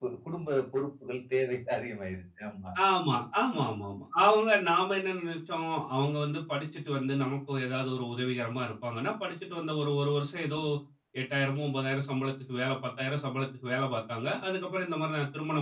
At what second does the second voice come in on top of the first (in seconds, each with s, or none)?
none